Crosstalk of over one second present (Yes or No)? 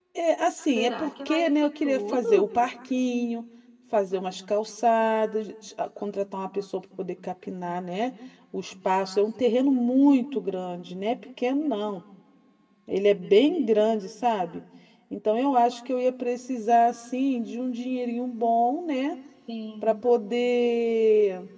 Yes